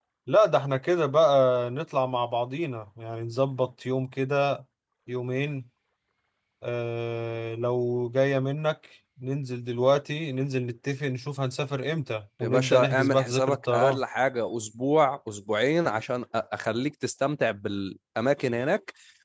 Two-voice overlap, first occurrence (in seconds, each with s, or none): 12.4 s